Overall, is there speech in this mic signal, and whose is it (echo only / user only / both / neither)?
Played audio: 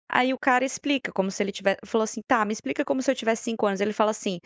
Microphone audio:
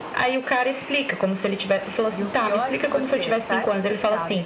both